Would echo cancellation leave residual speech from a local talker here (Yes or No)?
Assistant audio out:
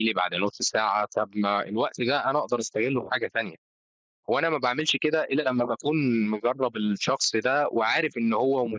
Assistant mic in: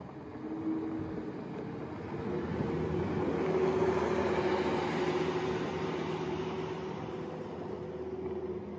No